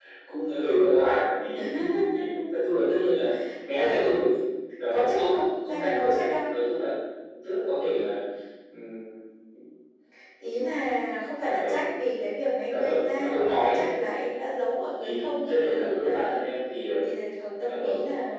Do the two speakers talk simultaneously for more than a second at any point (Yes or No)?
Yes